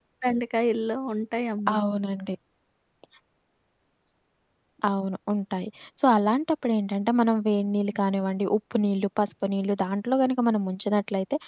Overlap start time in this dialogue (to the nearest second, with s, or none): none